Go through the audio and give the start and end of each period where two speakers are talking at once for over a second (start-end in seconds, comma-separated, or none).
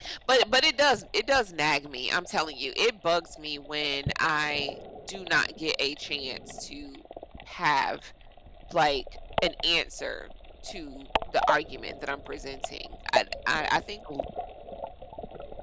none